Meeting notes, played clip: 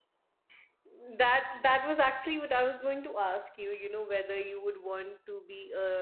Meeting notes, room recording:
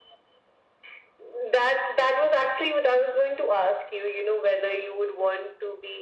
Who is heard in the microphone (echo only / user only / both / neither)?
echo only